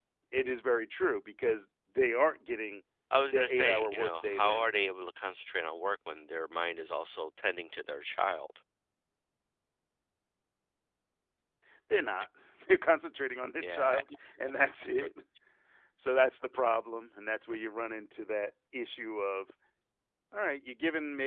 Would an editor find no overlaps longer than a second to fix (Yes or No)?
No